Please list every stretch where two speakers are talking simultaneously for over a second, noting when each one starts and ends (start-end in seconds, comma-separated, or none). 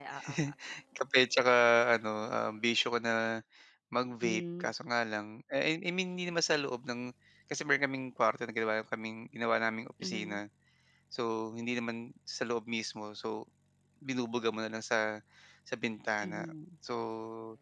none